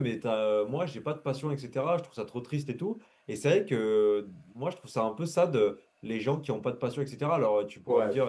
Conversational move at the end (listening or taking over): listening